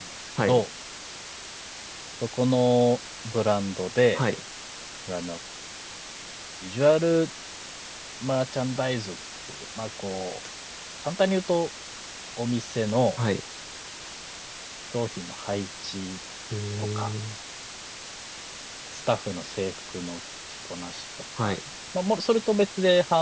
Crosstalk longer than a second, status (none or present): none